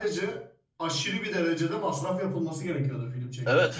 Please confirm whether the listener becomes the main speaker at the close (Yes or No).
Yes